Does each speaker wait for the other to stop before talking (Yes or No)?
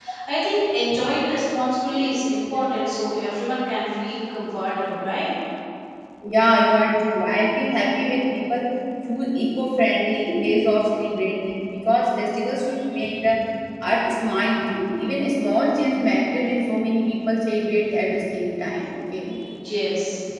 Yes